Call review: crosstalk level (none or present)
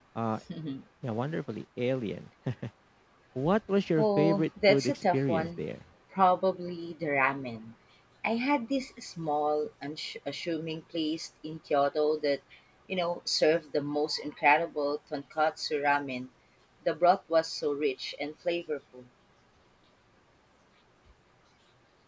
present